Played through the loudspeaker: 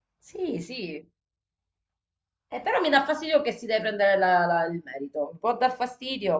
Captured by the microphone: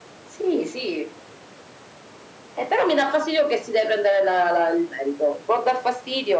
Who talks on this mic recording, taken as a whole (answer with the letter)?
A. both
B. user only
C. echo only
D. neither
C